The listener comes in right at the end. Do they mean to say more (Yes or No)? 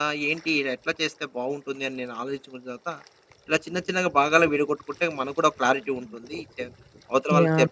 No